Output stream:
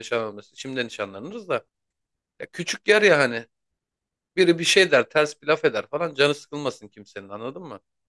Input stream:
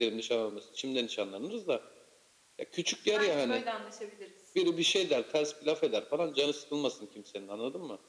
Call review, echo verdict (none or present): present